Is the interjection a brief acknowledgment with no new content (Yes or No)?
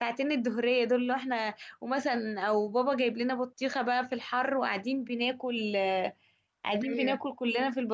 Yes